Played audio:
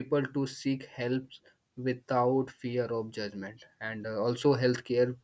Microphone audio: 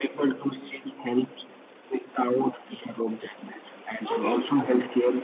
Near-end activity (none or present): present